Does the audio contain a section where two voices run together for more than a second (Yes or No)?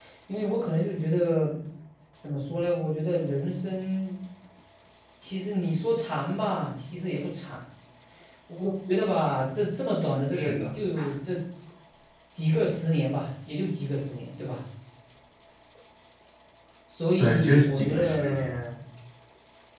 Yes